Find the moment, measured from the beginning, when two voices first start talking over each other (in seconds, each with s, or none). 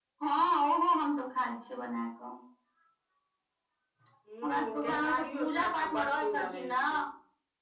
4.4 s